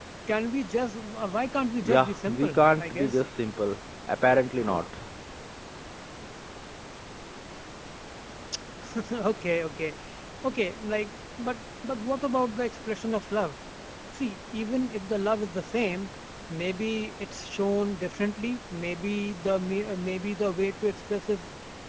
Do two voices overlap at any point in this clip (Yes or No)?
Yes